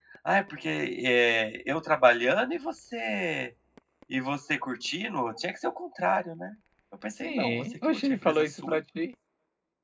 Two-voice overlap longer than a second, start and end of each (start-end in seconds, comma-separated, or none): 7.2-8.8